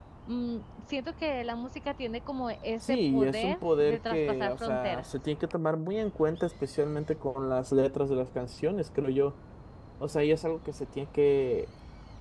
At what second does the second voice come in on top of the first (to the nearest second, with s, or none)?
3 s